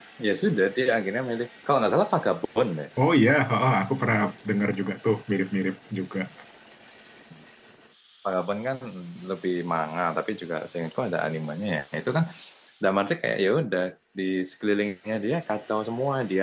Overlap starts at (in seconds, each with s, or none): none